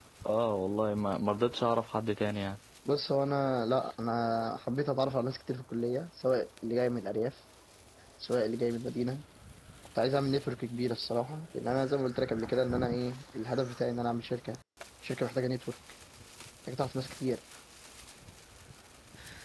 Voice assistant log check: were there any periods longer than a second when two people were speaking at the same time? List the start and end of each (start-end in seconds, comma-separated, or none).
none